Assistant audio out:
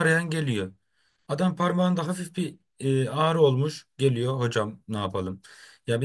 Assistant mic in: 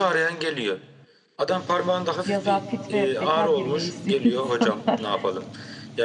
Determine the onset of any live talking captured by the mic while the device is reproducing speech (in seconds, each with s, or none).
2.2 s